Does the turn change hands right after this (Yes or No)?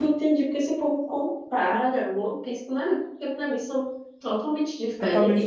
Yes